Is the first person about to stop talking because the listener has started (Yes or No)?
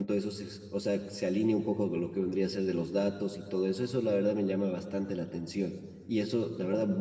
No